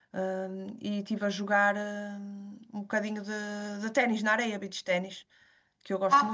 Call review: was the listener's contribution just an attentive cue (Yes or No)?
No